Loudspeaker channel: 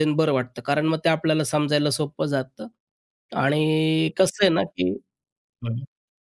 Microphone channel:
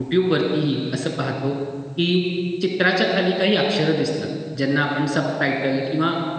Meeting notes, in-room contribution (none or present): present